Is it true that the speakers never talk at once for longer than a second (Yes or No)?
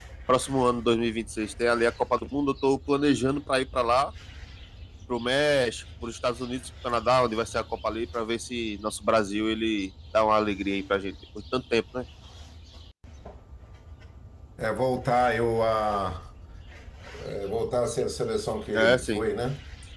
Yes